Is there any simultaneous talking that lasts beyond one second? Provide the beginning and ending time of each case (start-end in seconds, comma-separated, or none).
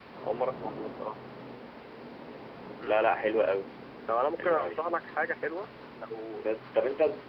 none